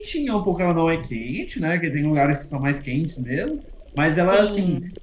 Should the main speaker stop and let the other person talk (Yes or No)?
No